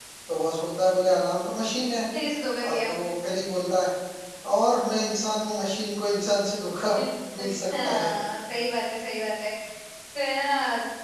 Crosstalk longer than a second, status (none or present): none